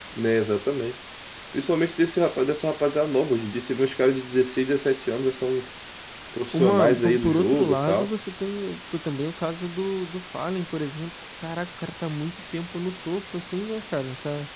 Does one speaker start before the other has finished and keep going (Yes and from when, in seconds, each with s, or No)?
Yes, from 6.5 s